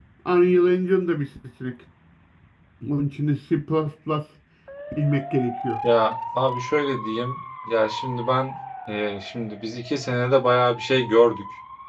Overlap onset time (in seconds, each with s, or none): none